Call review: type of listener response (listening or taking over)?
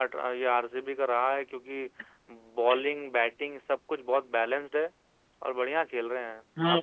taking over